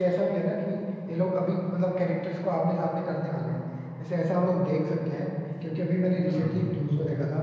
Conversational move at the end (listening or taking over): listening